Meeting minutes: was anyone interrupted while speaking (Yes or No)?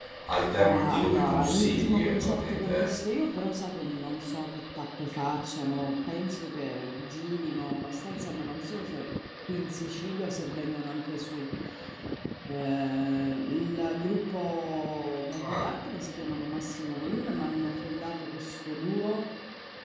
Yes